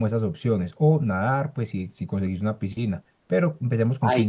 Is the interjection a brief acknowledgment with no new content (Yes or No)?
No